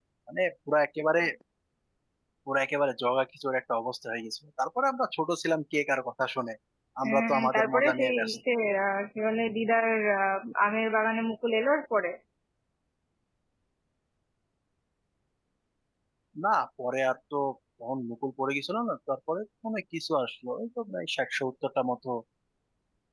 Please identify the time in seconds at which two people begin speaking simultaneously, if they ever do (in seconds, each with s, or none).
7.1 s